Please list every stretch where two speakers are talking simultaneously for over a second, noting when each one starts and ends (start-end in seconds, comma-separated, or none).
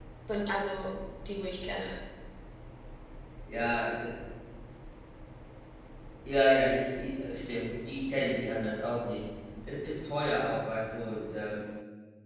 none